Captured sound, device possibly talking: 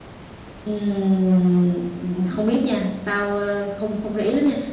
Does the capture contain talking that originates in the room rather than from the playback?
Yes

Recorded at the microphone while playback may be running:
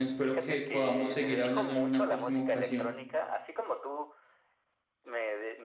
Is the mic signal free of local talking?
No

